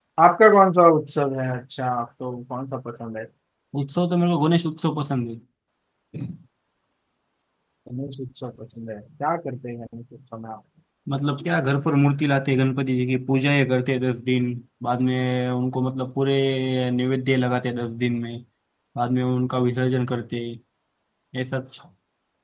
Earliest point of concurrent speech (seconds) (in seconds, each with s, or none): none